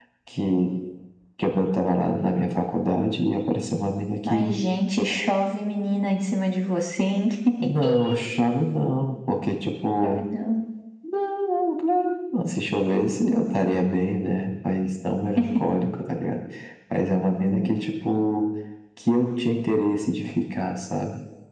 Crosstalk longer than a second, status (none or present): none